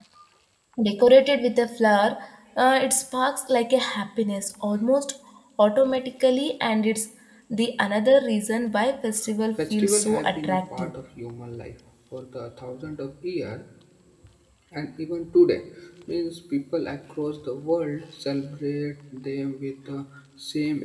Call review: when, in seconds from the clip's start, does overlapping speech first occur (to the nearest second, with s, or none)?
10 s